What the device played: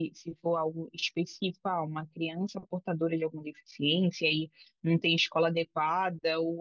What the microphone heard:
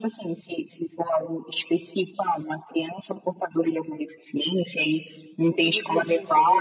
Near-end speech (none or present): present